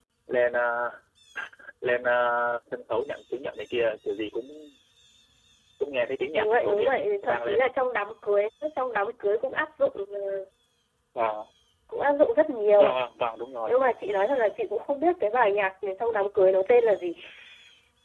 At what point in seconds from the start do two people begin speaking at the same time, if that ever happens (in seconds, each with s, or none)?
6.4 s